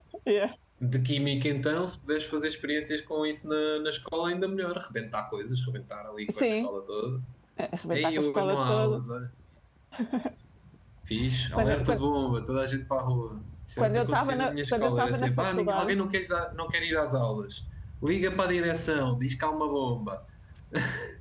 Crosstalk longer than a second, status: present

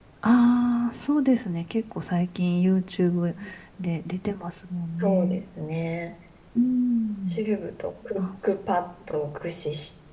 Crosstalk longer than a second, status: none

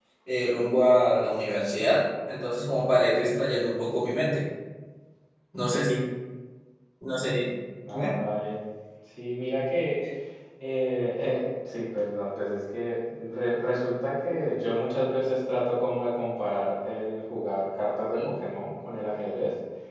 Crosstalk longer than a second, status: none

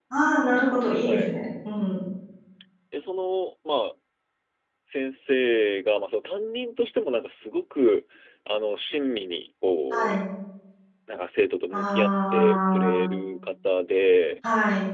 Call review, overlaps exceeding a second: present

